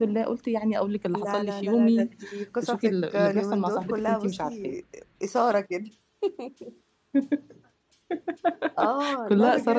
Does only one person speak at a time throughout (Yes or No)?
No